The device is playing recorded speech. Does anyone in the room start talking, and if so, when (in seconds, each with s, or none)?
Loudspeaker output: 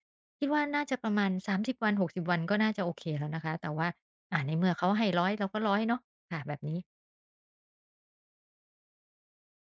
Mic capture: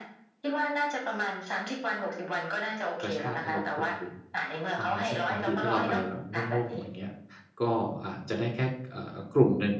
3.0 s